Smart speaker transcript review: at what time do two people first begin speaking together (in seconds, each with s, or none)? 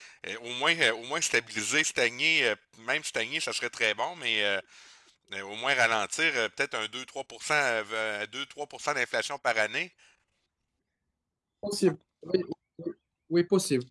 none